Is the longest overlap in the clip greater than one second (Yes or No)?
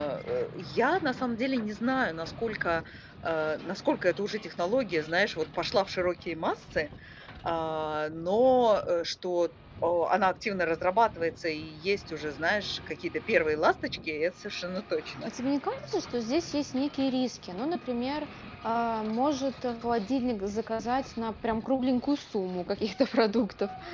No